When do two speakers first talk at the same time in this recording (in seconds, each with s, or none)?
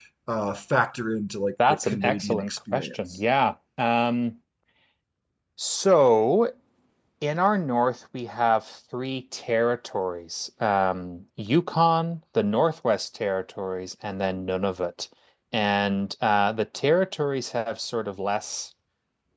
1.6 s